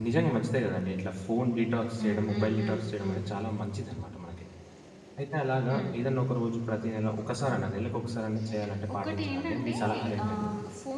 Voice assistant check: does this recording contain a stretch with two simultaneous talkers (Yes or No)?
Yes